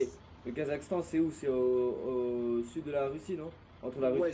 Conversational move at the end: taking over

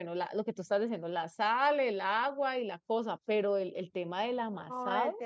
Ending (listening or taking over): taking over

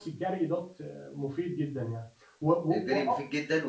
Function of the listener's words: taking over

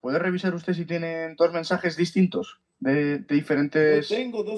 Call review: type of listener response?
taking over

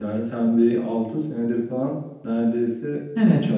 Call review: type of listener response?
taking over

